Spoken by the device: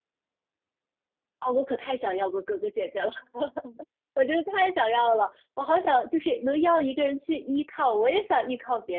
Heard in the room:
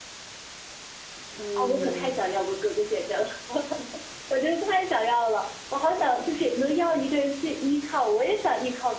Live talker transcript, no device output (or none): 嗯，